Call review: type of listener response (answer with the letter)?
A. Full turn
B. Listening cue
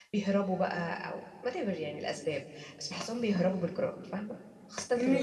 A